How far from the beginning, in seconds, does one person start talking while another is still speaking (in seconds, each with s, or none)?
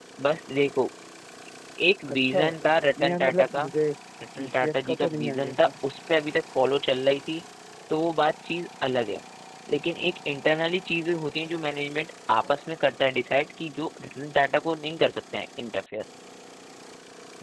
2.1 s